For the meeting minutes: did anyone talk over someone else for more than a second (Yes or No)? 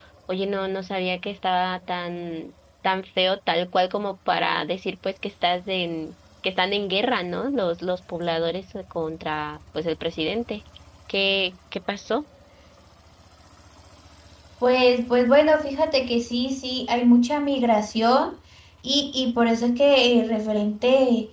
No